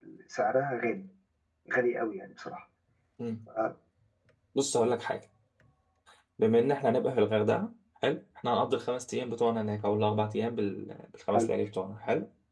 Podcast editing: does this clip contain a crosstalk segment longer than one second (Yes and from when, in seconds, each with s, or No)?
No